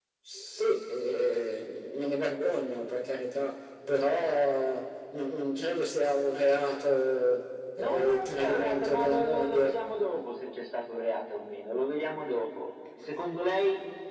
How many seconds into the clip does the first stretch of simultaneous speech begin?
8 s

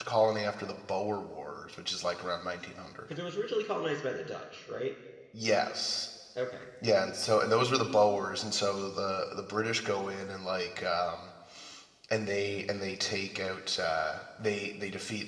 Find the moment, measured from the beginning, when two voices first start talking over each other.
none

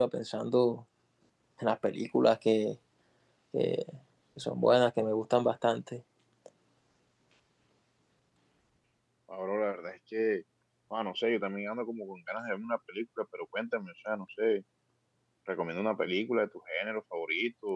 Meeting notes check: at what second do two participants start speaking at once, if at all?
none

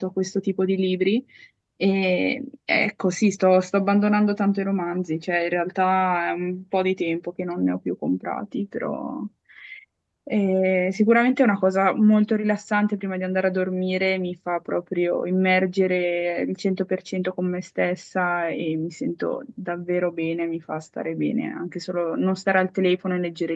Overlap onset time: none

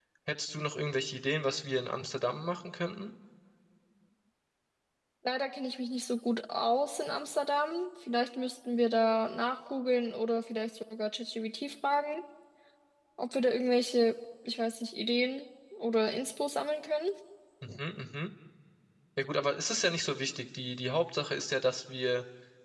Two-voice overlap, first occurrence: none

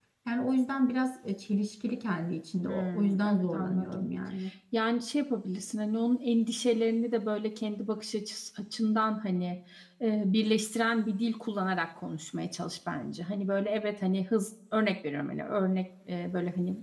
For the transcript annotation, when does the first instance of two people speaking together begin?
3 s

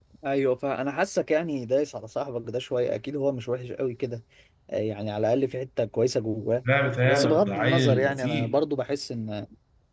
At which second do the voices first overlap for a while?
7 s

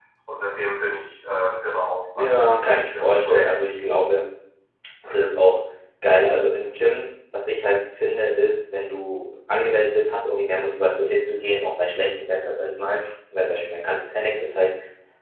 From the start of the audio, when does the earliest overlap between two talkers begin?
2 s

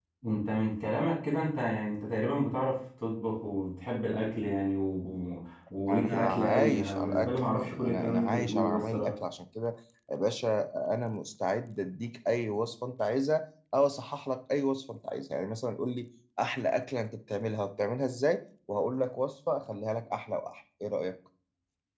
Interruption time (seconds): 6 s

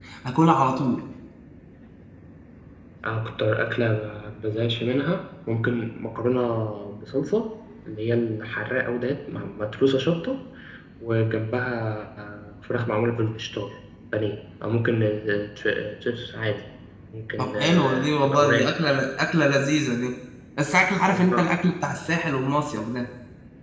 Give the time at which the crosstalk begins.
17 s

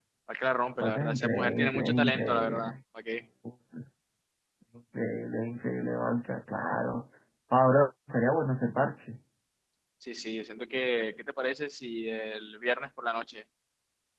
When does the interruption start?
1 s

